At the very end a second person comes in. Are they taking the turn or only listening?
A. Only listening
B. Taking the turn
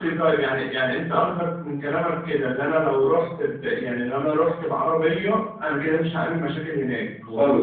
B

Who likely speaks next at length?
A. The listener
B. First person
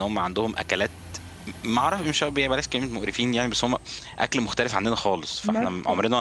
A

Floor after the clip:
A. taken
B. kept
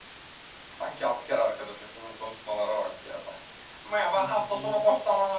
B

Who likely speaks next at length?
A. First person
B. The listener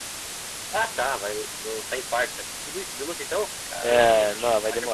B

